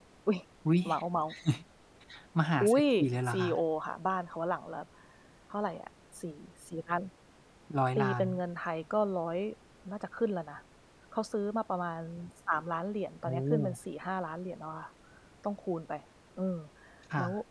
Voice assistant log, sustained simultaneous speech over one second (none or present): none